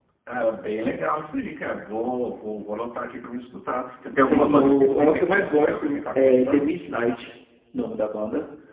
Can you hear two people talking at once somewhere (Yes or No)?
Yes